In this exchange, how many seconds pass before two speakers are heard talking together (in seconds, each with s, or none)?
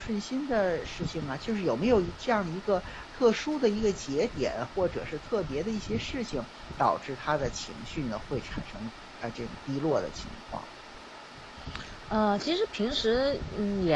none